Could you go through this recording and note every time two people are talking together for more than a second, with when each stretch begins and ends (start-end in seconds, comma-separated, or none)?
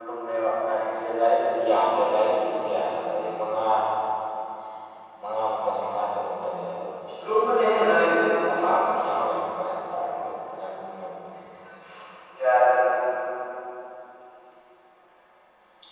none